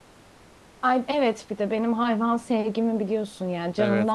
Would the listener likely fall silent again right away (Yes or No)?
No